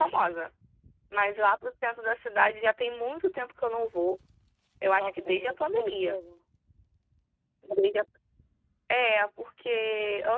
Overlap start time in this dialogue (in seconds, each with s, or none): 5.0 s